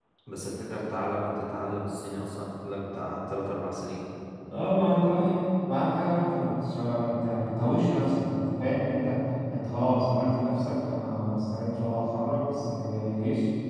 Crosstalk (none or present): none